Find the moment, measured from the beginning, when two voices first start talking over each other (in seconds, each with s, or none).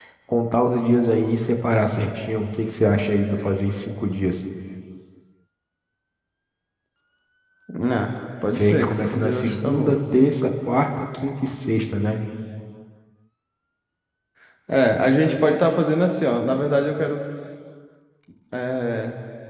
8.5 s